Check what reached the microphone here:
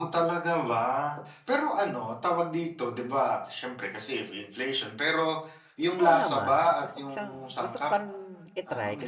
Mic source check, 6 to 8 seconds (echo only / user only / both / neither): both